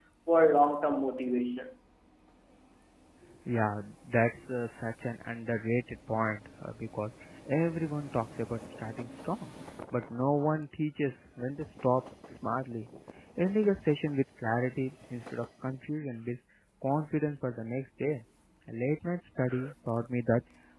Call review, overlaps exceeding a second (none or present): none